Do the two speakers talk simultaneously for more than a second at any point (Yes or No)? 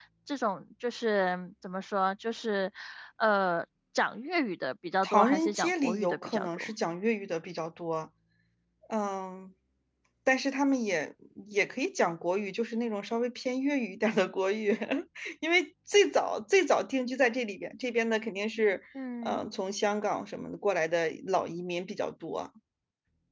Yes